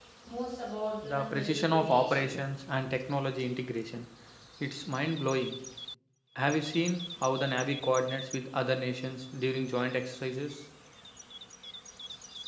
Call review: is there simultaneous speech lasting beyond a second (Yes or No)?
Yes